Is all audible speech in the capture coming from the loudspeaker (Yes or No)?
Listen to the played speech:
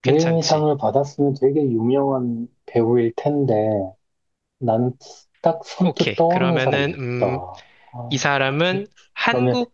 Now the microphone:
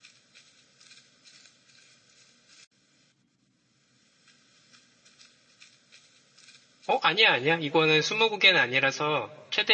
No